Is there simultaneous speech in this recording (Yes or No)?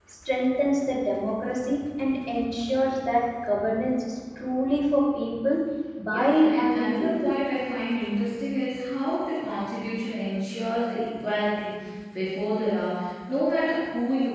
Yes